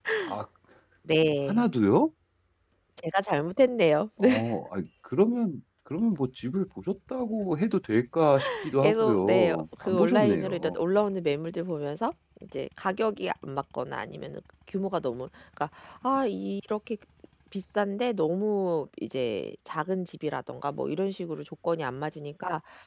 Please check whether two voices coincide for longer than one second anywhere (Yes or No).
Yes